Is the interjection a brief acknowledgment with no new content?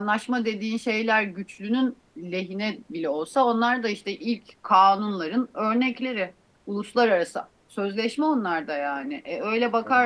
Yes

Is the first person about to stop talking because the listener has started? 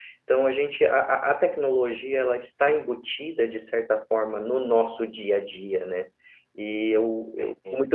No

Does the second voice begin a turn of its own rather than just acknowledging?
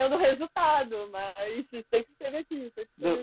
Yes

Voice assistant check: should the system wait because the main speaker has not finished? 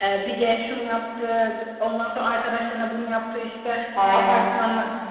Yes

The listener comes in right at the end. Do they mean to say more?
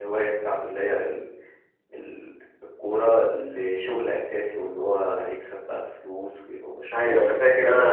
Yes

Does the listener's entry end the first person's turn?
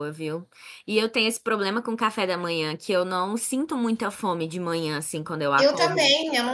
Yes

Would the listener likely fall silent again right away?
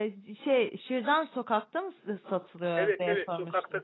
No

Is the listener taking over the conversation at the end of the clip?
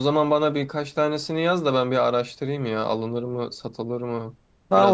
Yes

